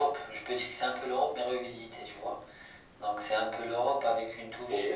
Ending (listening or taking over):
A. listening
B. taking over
A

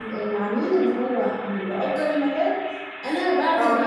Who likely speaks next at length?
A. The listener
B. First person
B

